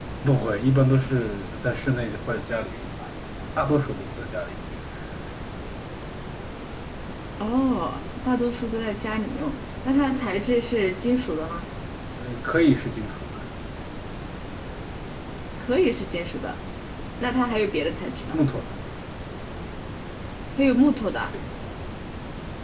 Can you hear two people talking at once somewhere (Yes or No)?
No